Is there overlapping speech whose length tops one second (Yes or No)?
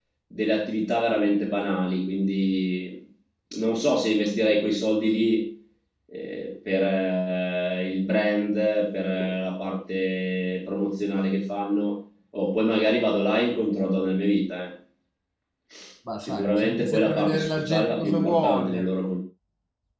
Yes